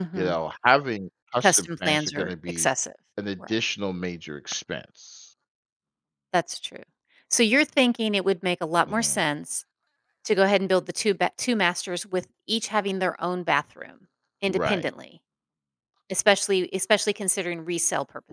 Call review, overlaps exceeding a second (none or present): present